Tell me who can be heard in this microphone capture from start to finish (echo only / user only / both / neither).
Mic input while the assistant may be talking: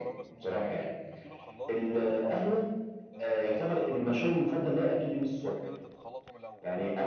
both